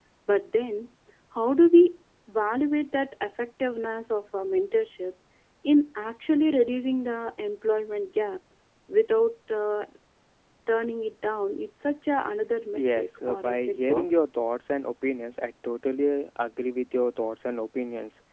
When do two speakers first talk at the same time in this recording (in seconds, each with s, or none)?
12.8 s